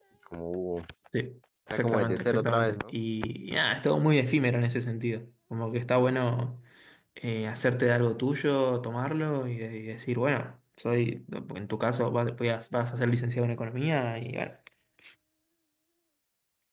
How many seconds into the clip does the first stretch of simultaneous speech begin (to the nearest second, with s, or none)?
2 s